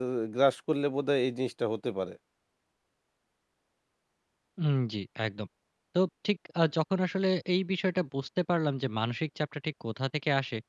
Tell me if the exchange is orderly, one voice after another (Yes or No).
Yes